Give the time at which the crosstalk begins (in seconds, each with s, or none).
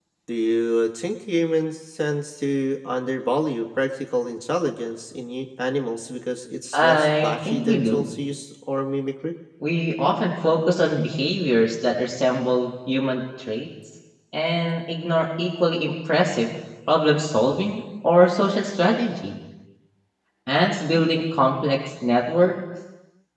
6.7 s